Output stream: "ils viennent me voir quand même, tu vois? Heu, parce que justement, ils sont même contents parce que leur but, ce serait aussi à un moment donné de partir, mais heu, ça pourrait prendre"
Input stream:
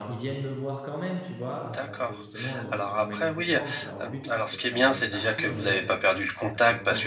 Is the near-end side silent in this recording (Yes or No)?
No